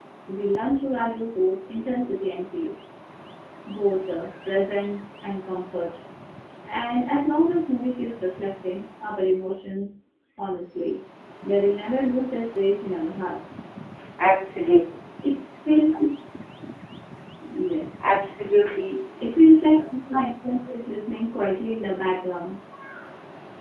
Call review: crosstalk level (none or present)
none